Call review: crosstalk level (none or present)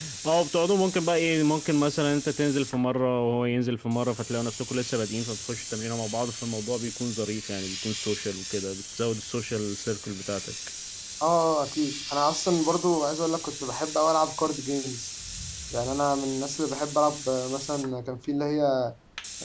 none